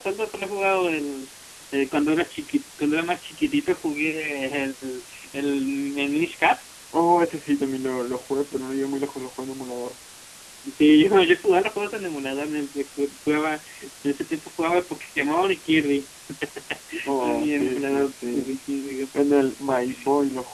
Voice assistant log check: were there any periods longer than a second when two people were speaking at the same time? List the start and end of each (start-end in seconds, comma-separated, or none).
17.2-18.5